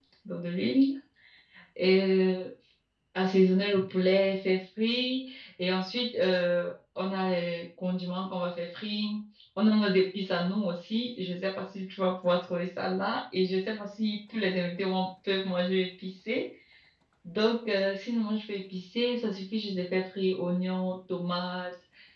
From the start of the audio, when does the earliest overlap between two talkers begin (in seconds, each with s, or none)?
none